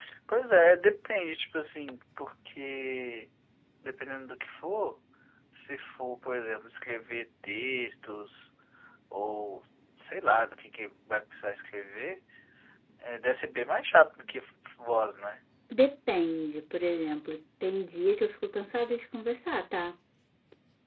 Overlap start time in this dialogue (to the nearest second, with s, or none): none